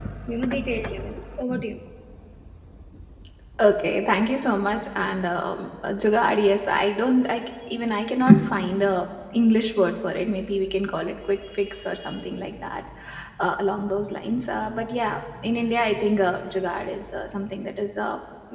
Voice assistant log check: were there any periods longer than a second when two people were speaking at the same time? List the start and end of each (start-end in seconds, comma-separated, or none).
none